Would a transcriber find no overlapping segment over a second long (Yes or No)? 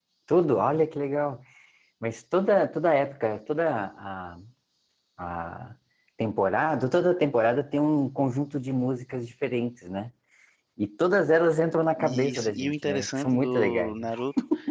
No